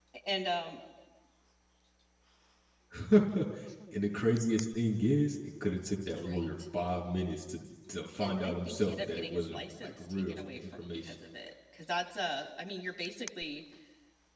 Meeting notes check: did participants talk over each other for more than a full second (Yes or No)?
Yes